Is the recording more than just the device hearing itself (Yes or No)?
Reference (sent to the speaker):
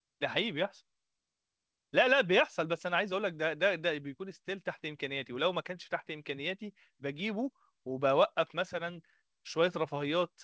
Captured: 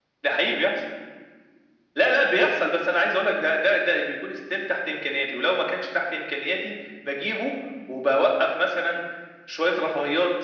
No